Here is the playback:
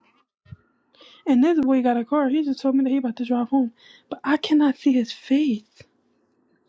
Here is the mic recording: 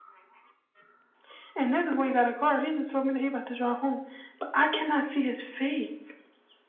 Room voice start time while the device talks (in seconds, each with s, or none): none